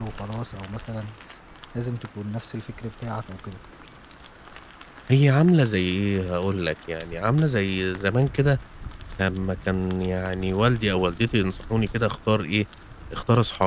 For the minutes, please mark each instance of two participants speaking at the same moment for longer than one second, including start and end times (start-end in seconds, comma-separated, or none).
none